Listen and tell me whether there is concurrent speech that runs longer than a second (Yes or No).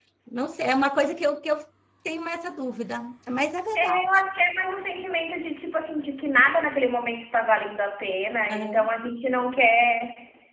No